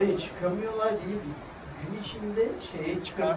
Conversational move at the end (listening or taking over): listening